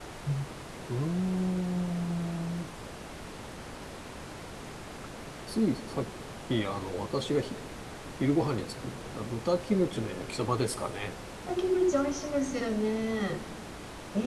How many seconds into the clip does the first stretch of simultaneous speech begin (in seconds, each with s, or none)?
none